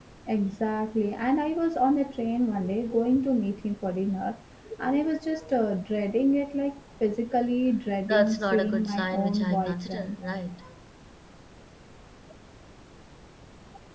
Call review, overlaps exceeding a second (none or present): present